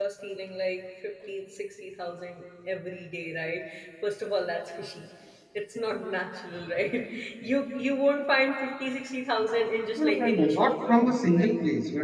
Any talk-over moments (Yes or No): Yes